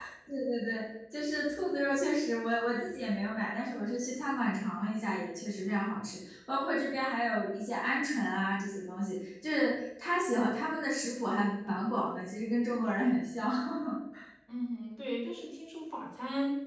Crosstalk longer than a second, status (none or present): none